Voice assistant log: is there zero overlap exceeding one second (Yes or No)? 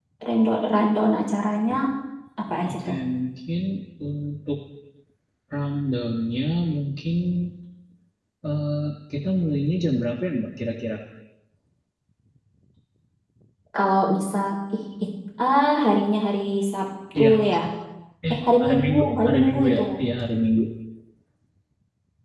No